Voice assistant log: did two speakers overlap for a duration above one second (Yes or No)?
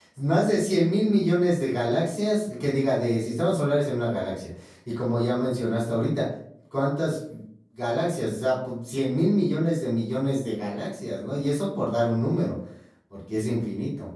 No